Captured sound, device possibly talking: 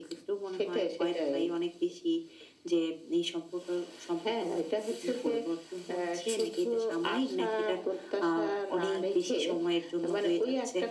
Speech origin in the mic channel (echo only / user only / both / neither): echo only